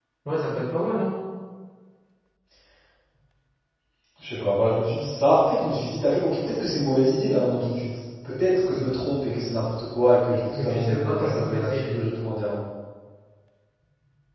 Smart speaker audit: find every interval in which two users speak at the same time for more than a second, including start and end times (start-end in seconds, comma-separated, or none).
10.5-11.9